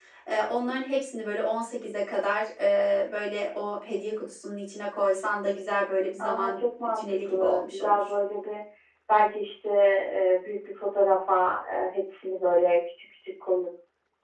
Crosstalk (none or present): present